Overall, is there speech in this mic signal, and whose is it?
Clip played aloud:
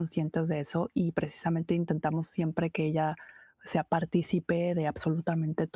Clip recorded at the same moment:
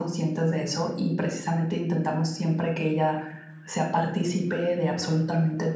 echo only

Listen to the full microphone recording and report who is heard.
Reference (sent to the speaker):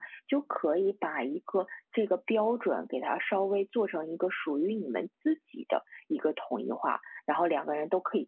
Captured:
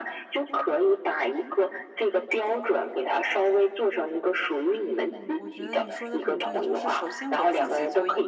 both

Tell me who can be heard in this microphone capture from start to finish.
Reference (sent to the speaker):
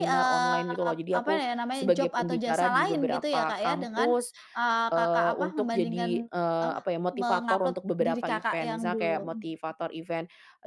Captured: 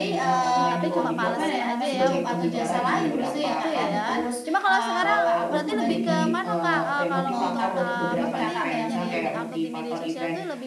both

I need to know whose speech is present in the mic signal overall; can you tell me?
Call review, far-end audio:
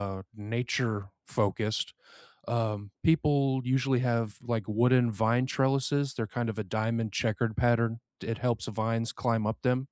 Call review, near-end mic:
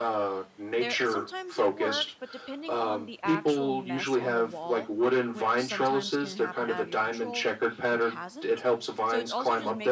both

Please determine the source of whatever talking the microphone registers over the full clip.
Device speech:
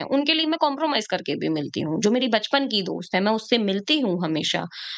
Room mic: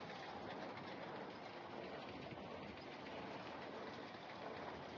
neither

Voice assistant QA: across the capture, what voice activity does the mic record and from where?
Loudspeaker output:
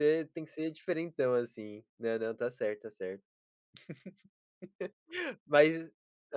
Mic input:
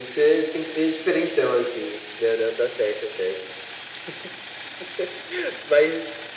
echo only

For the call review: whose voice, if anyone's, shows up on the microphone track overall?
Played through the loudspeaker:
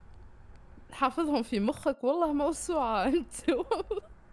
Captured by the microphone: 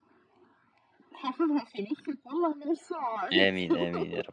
both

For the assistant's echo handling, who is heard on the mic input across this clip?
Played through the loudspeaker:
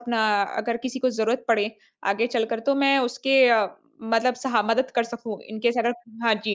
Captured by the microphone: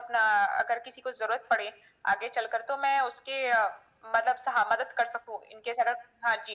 echo only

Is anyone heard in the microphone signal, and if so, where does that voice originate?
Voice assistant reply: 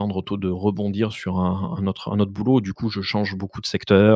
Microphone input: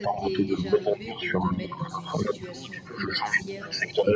both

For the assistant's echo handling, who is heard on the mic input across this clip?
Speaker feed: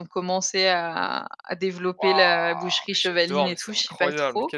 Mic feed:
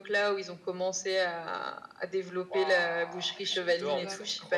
both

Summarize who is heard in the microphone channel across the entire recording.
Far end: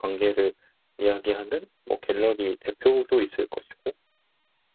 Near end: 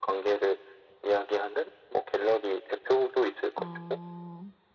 both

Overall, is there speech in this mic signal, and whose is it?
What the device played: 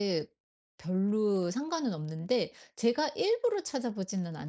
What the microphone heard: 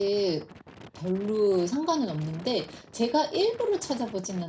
echo only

